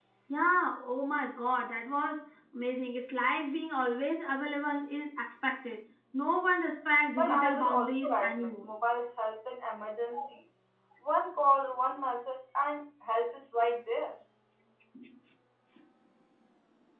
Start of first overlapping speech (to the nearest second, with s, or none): 7 s